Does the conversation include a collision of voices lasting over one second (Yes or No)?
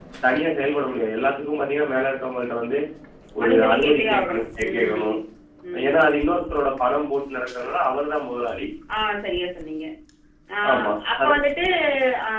Yes